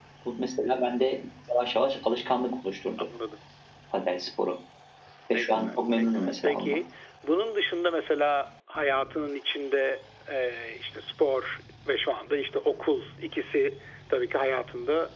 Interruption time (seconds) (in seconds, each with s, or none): 5.3 s